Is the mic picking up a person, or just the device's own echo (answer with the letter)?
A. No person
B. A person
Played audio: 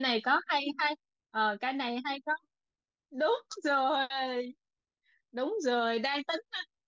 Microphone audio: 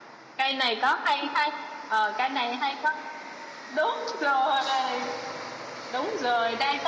A